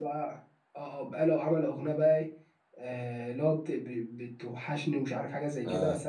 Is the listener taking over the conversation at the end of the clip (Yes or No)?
No